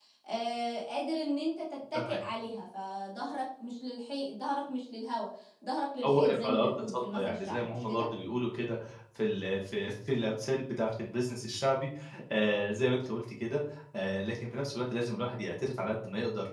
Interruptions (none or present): present